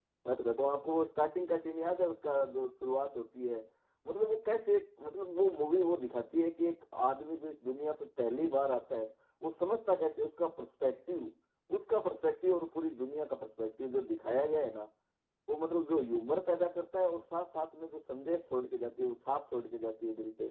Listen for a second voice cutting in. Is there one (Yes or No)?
No